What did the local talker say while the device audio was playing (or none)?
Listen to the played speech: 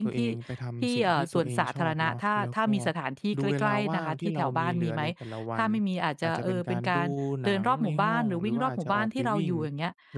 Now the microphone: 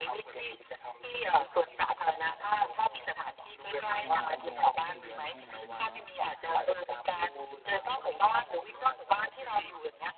เราอาจจะมองข้ามมันไปแค่นั้นเองเนาะ